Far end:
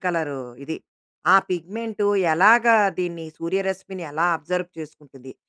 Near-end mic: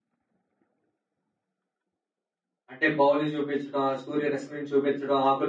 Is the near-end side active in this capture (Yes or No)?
Yes